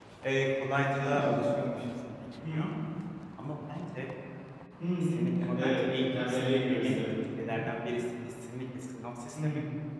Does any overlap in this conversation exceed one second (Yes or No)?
Yes